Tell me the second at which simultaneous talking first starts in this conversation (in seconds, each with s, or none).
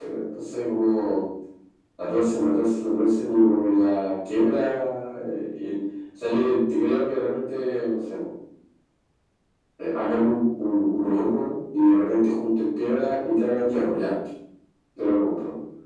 none